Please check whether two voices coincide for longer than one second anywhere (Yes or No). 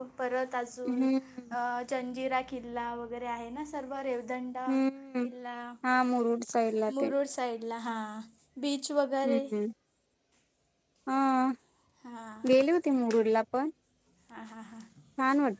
No